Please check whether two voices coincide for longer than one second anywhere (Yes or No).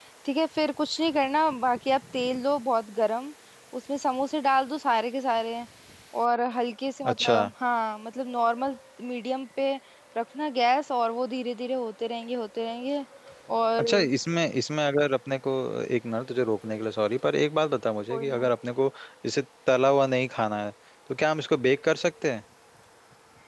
No